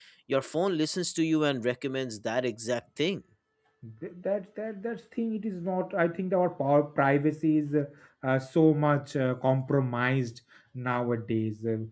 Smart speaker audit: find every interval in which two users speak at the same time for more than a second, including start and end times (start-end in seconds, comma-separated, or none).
none